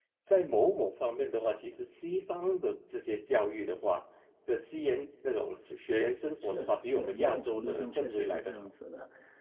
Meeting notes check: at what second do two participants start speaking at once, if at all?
6 s

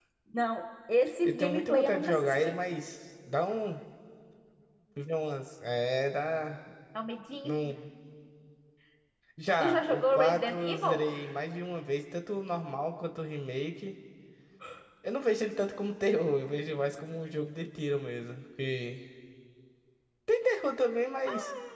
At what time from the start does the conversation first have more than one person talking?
1 s

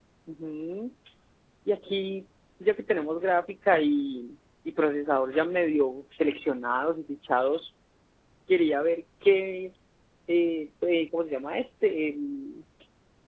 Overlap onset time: none

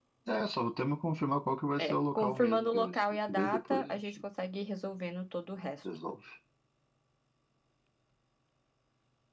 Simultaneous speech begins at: 2 s

